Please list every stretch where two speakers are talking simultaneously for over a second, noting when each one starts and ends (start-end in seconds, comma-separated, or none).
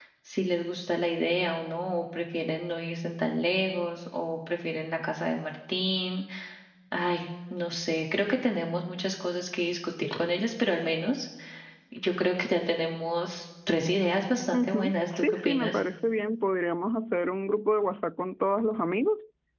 14.5-15.8